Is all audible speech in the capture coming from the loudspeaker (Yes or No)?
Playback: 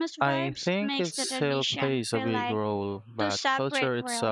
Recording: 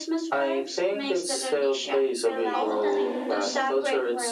No